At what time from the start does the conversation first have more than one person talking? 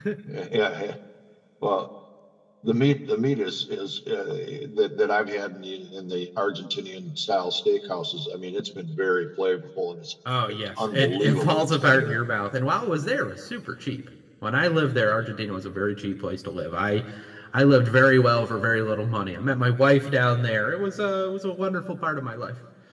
10.2 s

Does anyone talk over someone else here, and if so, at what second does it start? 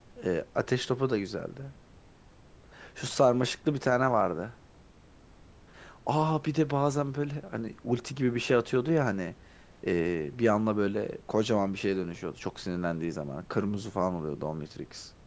none

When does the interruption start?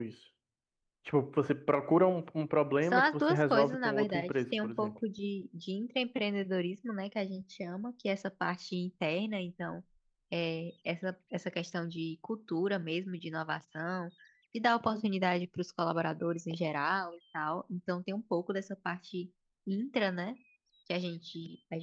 2.9 s

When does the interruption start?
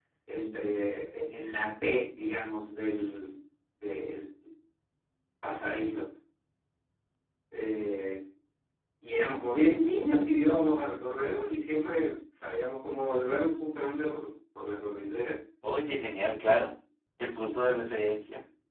none

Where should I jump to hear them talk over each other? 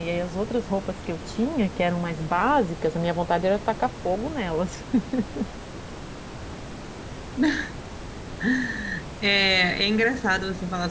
none

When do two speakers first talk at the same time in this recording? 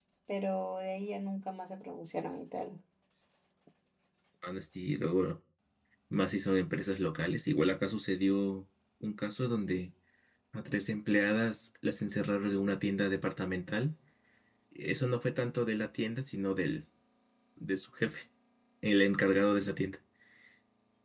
none

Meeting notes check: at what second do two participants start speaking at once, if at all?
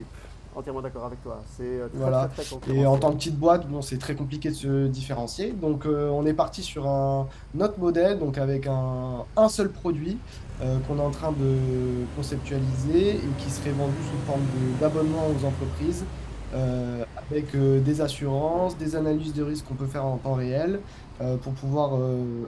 1.9 s

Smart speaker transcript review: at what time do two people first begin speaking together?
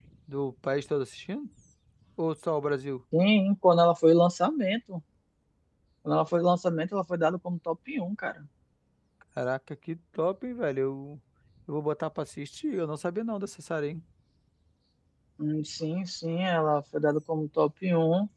none

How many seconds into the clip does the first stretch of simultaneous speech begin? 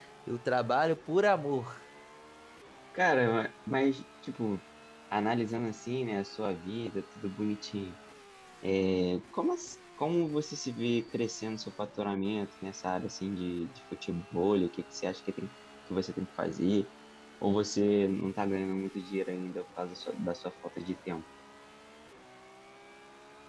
none

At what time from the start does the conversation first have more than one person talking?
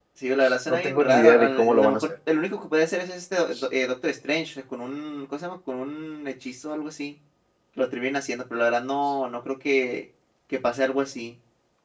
0.7 s

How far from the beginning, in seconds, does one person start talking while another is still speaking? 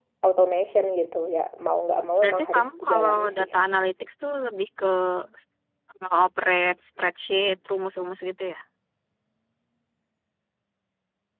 2.2 s

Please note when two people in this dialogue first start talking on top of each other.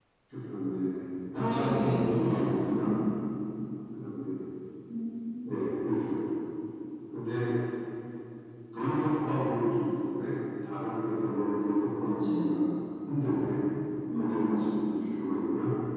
1.4 s

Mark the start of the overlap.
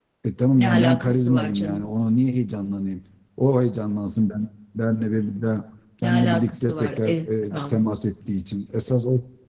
0.6 s

